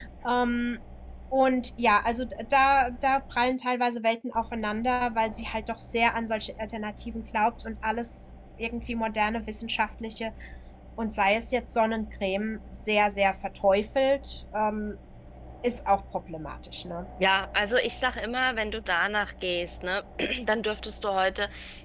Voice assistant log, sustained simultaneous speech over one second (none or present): none